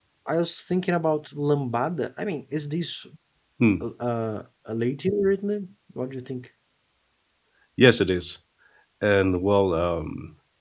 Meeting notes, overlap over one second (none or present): none